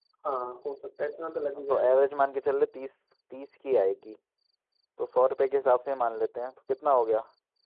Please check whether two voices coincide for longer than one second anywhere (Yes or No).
No